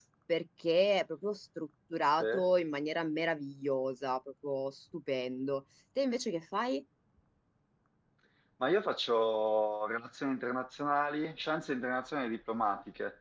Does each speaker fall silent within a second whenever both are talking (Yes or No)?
Yes